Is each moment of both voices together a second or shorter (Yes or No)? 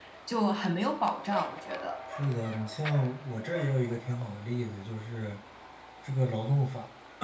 Yes